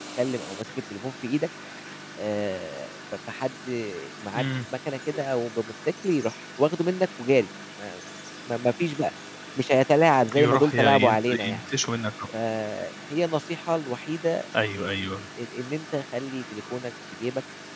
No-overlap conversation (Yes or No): No